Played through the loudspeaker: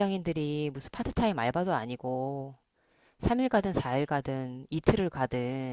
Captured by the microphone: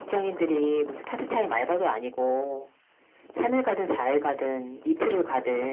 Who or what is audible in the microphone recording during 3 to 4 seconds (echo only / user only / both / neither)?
echo only